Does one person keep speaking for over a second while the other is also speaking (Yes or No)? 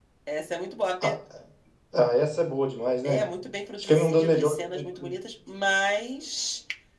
Yes